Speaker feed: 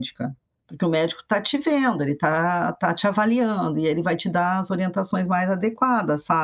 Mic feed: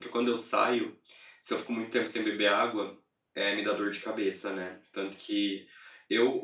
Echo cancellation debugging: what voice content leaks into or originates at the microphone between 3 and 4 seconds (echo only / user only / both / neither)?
user only